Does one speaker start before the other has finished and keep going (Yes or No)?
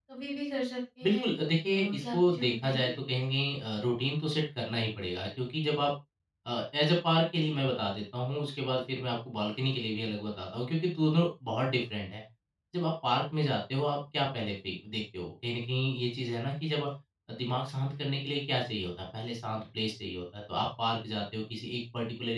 Yes